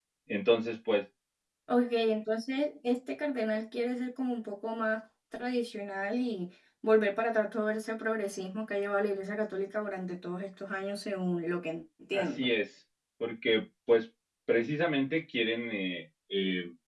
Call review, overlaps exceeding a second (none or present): none